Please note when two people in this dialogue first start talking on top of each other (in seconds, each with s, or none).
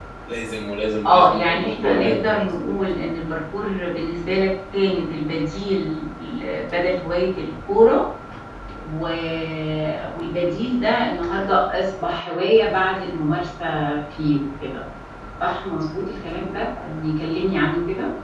1.1 s